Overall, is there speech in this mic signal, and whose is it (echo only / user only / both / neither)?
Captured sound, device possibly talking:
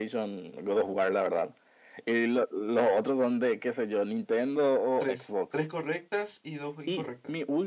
both